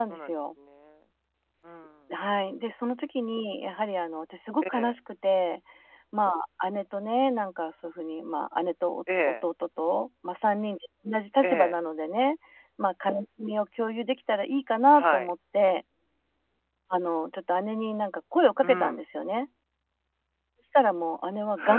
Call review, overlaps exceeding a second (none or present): none